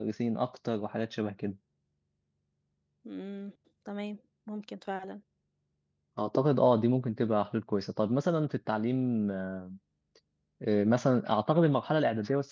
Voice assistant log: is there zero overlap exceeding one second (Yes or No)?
Yes